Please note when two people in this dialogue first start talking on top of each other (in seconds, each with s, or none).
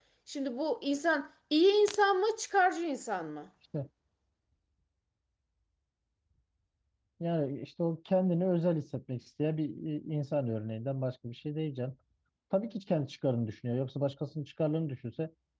none